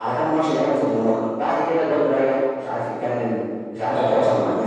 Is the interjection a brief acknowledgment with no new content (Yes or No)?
No